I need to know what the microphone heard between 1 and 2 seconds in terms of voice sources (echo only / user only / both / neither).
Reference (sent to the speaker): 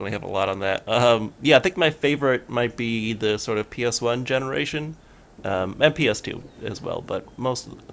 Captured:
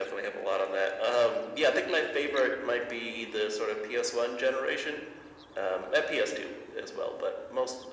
echo only